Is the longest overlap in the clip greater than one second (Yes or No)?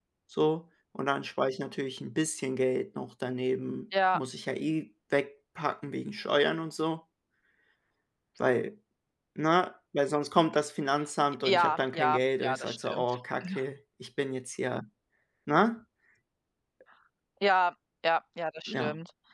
Yes